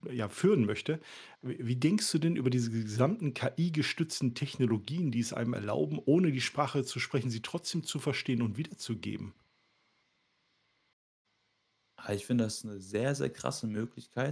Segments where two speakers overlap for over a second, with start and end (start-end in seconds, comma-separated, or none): none